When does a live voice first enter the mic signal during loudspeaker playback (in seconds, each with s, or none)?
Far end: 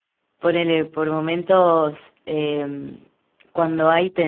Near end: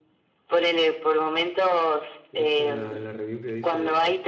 2.3 s